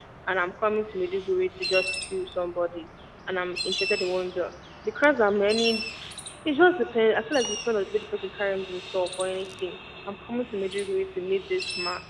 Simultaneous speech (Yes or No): No